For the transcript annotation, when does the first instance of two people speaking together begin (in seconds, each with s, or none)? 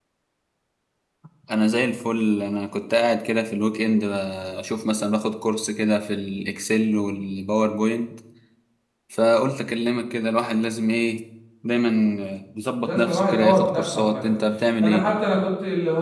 12.8 s